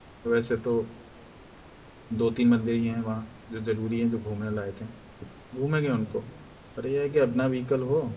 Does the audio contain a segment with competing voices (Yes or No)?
No